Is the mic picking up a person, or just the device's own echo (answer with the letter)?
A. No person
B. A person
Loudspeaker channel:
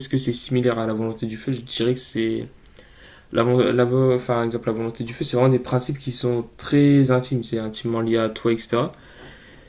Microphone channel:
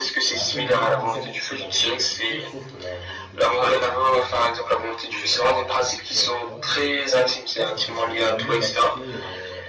B